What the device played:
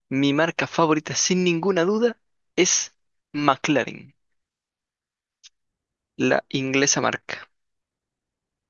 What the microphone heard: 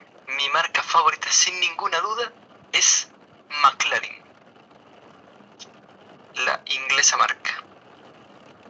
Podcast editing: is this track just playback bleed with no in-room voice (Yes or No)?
Yes